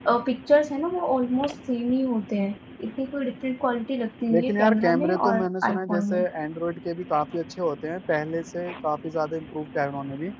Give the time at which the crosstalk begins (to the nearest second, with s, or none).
4 s